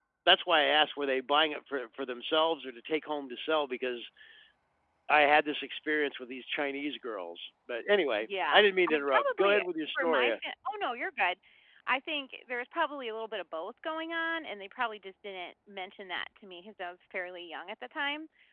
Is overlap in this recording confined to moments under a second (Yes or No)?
No